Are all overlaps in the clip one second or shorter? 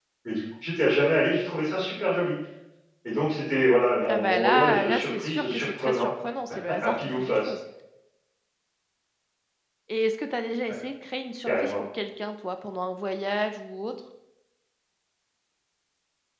No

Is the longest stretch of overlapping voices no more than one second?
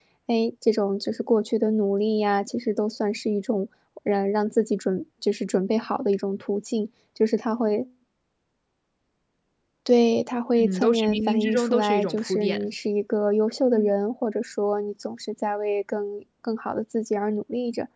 No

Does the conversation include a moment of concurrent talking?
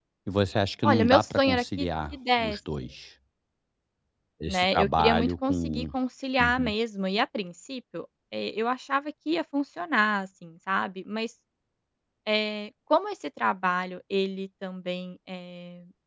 Yes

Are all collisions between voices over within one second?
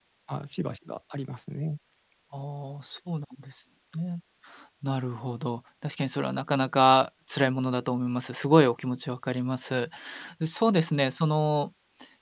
Yes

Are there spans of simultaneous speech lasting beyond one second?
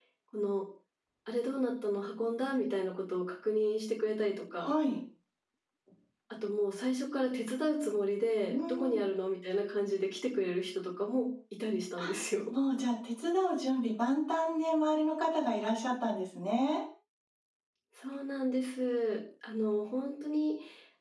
No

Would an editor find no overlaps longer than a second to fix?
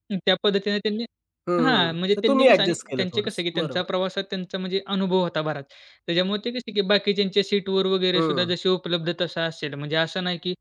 No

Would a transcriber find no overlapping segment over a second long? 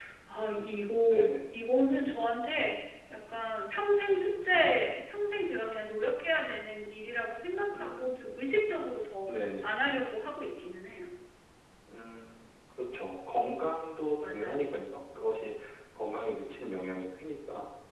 Yes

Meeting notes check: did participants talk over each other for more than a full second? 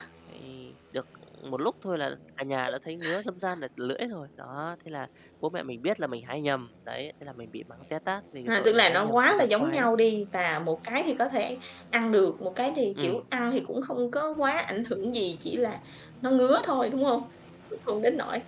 Yes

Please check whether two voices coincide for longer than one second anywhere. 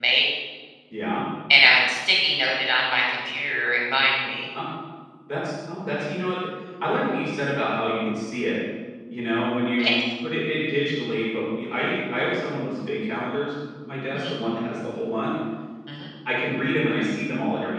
No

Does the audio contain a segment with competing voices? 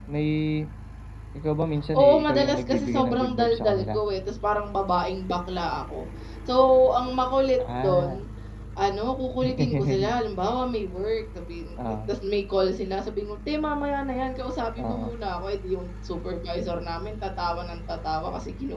Yes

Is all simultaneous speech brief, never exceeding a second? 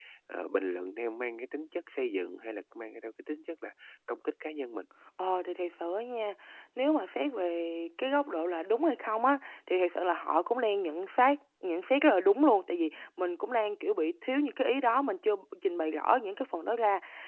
Yes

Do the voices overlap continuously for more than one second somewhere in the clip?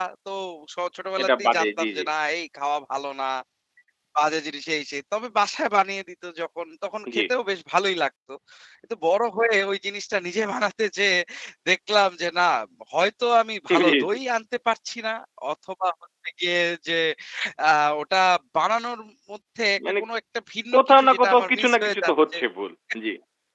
Yes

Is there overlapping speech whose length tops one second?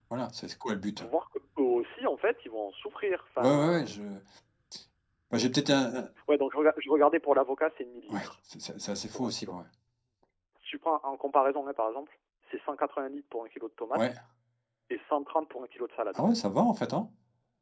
No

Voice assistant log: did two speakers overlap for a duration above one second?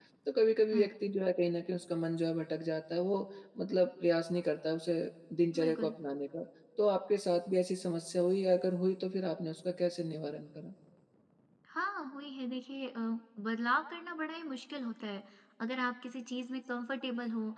No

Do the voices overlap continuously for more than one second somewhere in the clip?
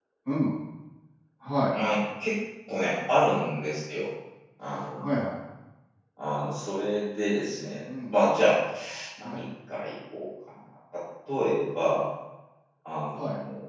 No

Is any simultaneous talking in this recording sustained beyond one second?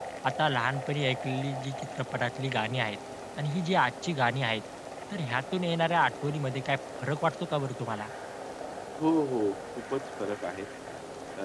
No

